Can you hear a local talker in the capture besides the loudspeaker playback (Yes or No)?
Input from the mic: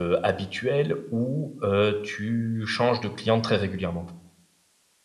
Yes